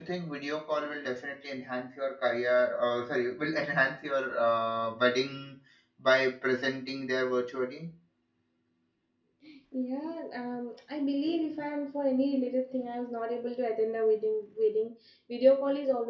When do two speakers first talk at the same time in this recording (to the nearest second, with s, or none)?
none